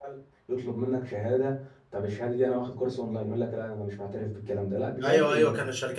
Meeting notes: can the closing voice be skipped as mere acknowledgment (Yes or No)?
No